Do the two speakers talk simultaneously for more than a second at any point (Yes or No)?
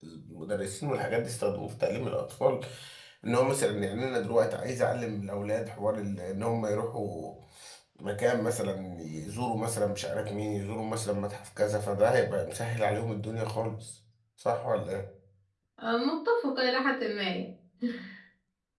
No